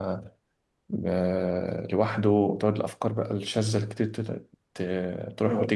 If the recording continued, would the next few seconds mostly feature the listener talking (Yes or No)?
Yes